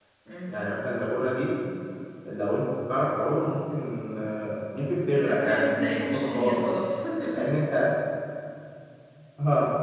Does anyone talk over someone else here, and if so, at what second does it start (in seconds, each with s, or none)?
5.2 s